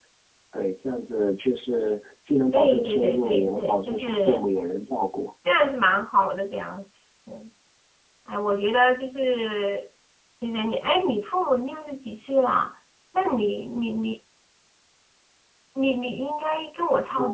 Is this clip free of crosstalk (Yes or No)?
No